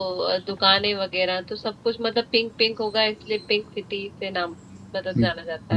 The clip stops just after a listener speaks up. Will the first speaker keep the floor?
No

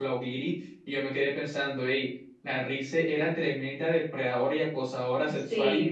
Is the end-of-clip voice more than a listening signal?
No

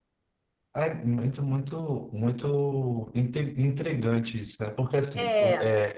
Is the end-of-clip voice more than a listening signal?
No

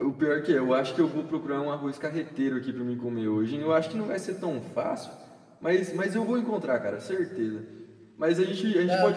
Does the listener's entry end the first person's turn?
Yes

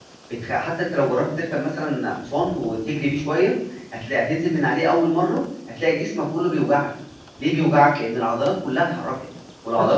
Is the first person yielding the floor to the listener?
Yes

